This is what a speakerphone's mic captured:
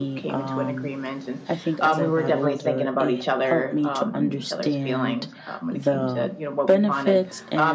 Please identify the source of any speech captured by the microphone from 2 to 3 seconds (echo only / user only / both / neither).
both